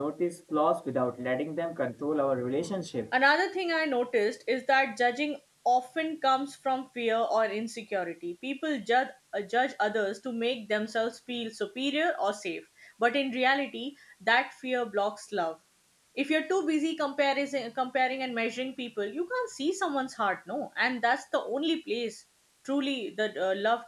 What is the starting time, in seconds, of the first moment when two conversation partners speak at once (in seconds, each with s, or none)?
none